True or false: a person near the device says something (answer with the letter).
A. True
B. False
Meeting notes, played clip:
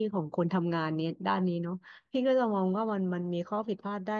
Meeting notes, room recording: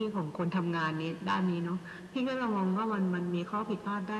B